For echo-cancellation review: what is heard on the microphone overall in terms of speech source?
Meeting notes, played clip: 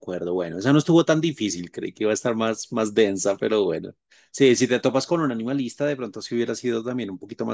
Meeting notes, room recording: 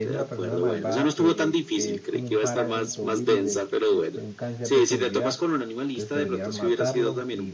both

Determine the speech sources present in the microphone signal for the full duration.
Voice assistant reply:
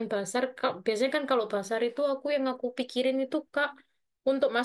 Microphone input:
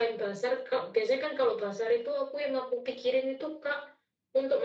echo only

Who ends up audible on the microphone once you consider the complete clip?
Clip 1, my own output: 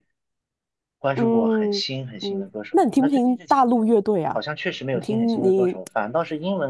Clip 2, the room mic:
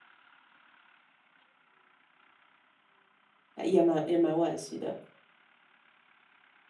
user only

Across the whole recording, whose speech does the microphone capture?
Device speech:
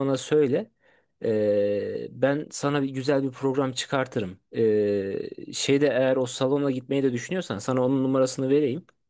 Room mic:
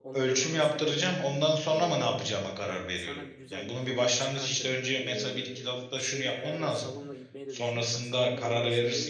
both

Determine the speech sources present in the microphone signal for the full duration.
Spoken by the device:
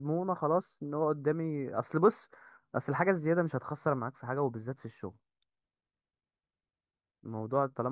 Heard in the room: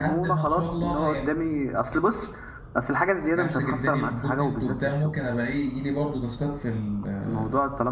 both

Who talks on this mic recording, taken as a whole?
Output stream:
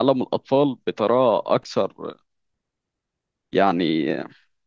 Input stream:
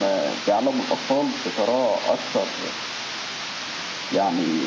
echo only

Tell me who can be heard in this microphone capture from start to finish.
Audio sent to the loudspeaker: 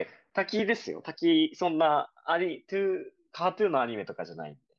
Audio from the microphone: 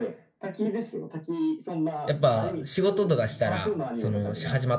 both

